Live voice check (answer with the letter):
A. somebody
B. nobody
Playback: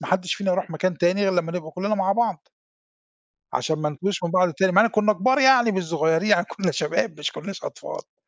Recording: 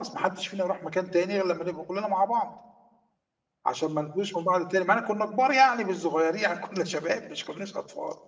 B